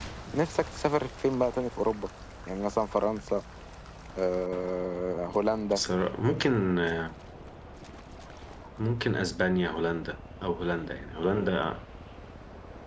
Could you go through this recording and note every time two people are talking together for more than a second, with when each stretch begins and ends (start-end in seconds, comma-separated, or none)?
none